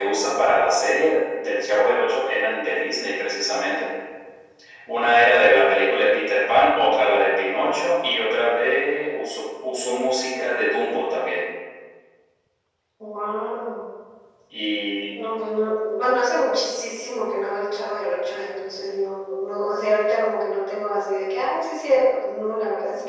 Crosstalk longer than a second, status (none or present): none